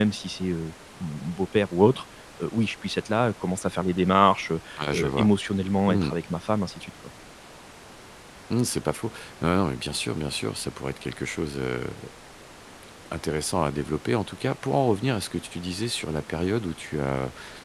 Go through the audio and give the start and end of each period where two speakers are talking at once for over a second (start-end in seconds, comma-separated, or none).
none